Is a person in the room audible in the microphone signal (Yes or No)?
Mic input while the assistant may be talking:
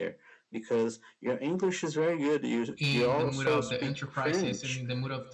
Yes